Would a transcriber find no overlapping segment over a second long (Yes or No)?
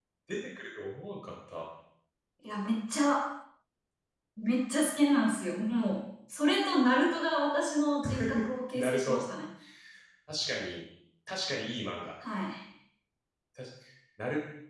Yes